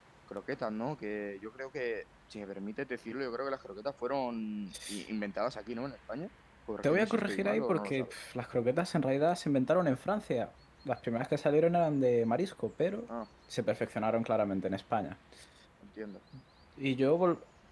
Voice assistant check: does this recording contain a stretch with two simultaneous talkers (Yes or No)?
Yes